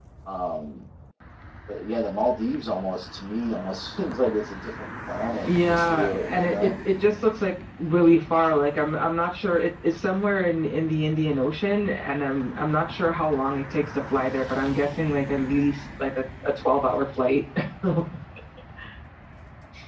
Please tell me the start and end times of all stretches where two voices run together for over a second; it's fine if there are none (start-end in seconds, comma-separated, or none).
5.5-6.7